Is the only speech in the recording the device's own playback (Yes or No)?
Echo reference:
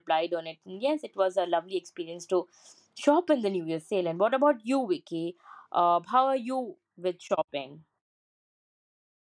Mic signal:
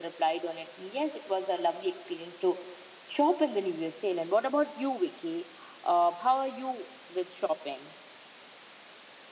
Yes